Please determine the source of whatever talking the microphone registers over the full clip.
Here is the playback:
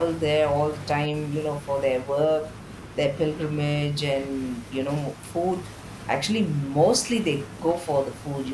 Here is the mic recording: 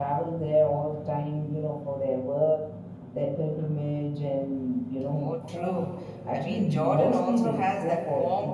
both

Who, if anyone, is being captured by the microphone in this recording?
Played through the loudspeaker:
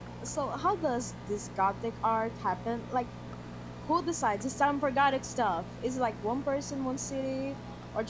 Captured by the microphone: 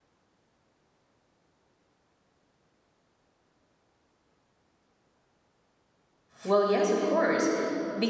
user only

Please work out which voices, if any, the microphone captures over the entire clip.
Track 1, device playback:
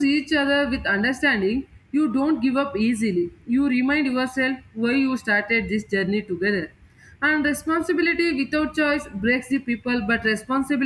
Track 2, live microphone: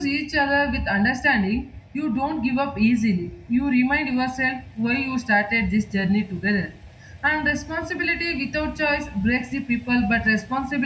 echo only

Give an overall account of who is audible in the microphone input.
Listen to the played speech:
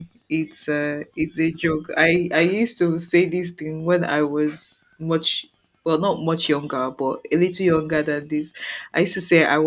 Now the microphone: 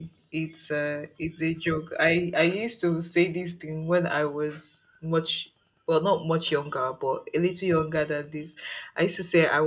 echo only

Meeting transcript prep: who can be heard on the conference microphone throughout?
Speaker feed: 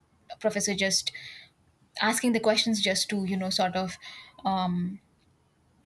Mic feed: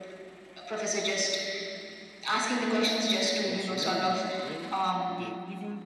both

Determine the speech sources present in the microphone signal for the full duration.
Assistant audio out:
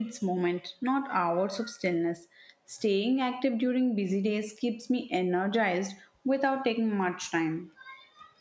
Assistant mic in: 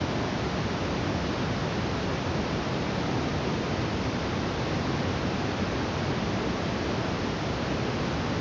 neither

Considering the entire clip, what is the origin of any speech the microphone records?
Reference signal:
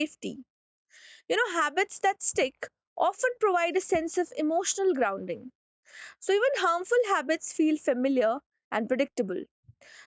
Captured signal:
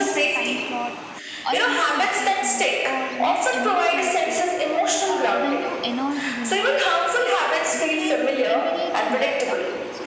both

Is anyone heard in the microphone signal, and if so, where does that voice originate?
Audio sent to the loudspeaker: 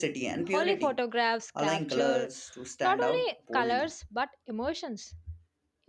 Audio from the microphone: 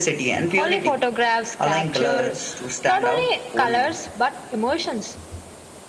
echo only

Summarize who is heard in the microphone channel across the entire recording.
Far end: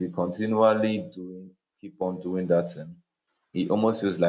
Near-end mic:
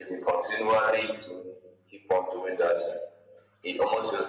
echo only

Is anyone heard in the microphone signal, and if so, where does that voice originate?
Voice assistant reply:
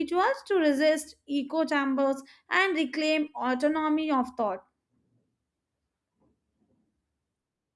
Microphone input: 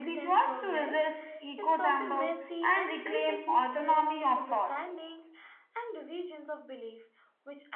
both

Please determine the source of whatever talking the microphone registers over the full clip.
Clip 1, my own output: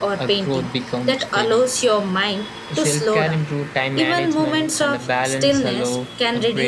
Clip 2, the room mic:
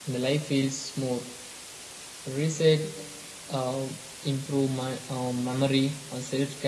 user only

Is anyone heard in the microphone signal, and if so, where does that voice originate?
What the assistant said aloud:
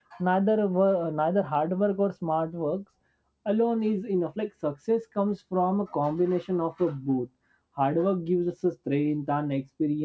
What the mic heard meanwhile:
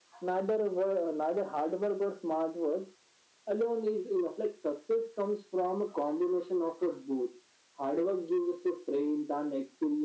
echo only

